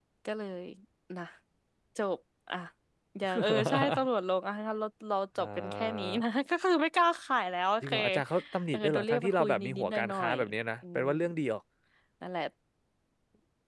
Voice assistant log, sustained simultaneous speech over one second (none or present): present